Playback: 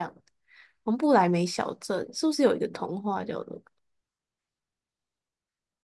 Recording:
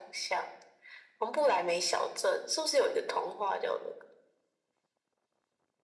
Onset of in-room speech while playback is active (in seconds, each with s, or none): none